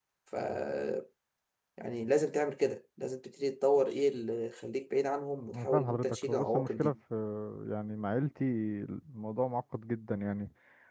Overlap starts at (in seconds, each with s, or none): 5.5 s